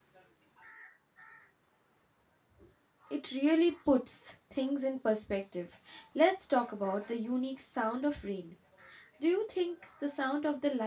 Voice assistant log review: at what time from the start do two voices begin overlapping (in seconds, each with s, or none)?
none